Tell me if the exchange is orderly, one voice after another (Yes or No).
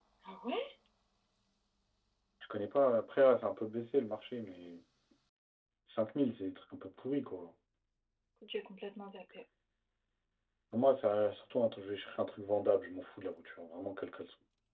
Yes